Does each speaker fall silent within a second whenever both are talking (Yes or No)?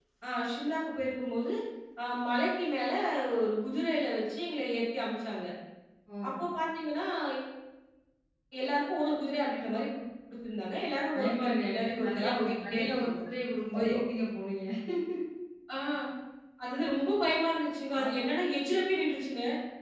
No